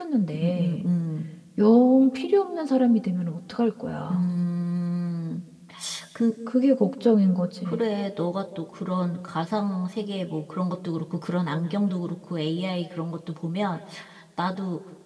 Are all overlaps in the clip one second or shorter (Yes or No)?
Yes